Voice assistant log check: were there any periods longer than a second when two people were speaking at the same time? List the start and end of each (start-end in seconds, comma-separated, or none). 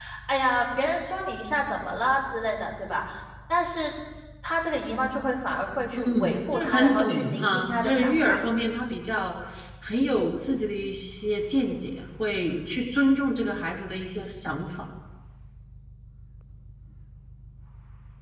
6.0-8.4